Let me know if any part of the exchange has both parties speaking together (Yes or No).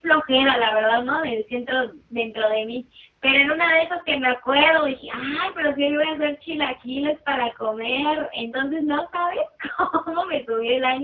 No